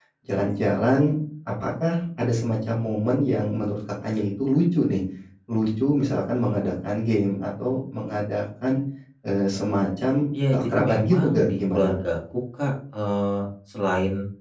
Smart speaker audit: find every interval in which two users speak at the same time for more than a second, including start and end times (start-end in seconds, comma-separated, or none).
10.5-11.9